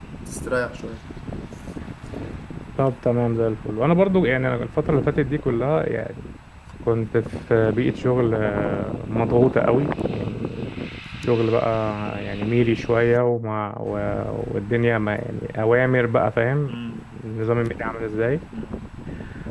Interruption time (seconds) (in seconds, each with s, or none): none